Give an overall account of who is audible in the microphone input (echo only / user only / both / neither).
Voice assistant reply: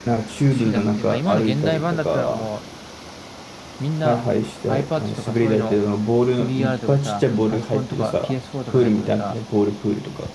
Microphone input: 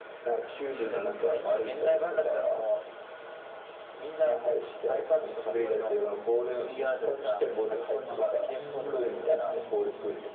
both